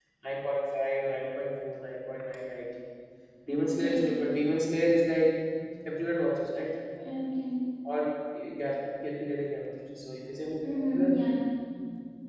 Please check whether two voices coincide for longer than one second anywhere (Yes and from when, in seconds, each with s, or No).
No